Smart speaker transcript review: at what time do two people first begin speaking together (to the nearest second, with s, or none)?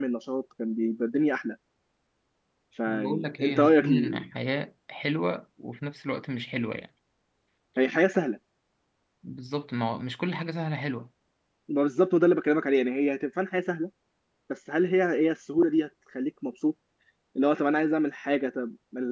3 s